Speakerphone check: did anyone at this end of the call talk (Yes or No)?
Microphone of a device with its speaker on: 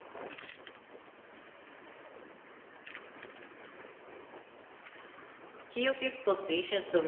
Yes